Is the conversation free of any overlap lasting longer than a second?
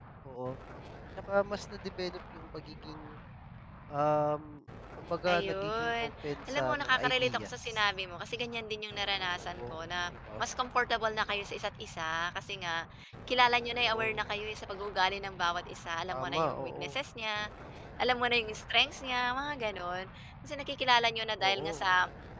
No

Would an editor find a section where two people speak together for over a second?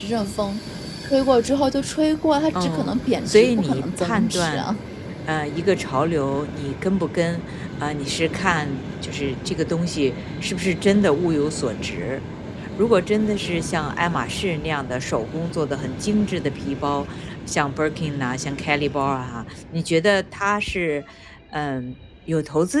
Yes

